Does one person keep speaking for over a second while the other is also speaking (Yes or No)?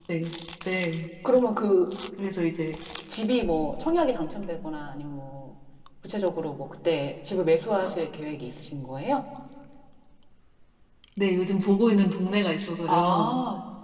No